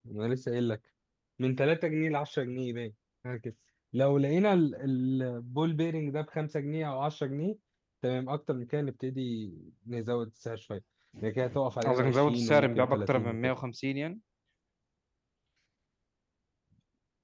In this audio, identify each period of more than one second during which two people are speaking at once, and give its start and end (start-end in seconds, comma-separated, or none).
11.8-13.4